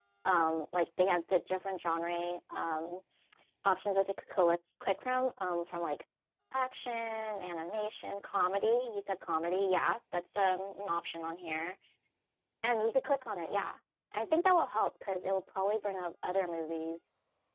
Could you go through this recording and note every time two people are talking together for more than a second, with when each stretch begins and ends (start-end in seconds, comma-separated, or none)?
none